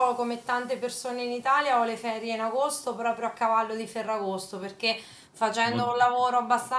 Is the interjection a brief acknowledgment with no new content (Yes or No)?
Yes